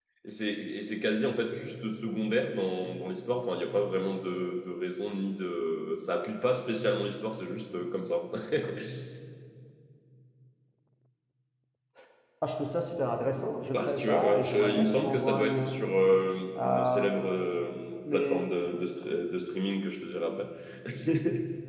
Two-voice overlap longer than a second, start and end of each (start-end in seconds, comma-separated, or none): 13.7-15.8